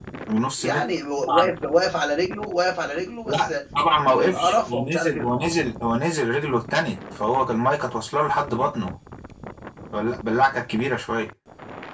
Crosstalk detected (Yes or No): Yes